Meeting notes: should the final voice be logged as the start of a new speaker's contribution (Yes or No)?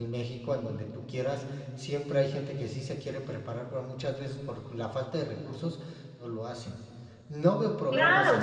Yes